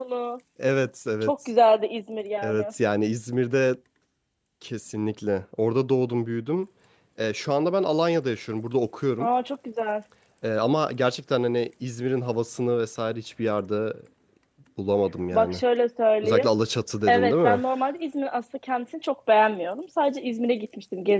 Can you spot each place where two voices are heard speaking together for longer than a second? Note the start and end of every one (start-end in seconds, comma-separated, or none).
none